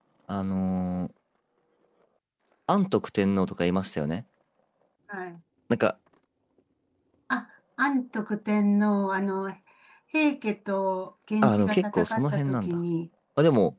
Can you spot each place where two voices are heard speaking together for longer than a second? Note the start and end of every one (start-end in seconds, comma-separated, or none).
11.4-12.8